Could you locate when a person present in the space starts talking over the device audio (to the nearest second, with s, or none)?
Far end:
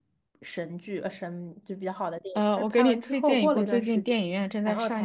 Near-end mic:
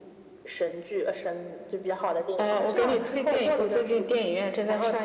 2 s